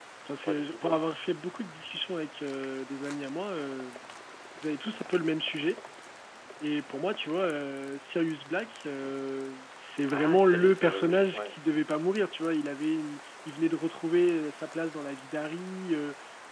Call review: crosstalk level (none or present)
present